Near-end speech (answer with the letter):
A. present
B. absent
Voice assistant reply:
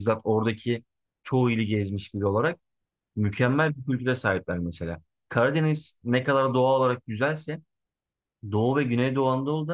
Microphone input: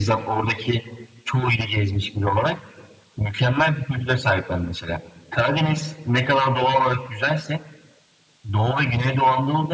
B